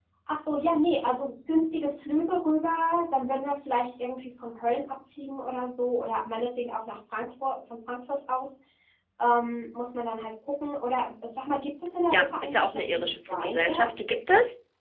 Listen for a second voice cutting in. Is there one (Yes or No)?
Yes